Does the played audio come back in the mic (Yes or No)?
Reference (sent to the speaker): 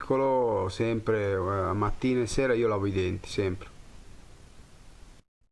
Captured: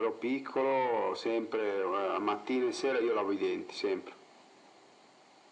Yes